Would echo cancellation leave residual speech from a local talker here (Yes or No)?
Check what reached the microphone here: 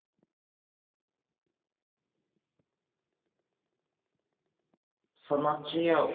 Yes